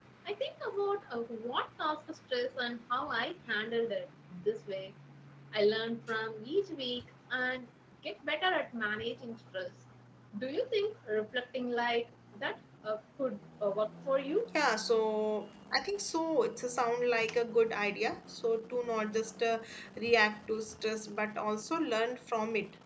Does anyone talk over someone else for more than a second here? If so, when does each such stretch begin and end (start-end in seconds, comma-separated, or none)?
none